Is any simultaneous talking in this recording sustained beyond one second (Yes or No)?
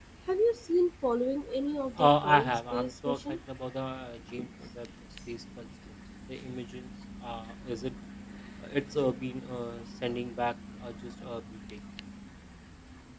Yes